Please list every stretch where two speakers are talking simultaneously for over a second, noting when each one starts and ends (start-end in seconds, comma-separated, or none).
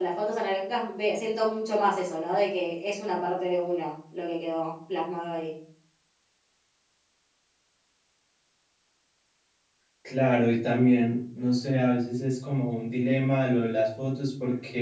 none